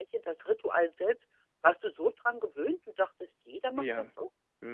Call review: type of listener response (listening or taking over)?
taking over